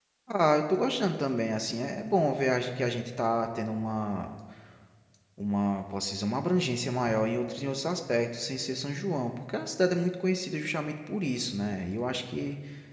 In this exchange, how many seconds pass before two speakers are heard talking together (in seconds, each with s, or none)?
none